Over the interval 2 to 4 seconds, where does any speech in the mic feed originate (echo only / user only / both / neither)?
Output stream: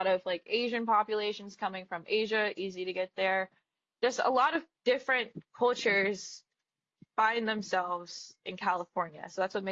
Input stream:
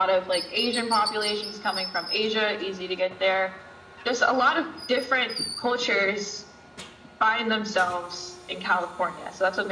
echo only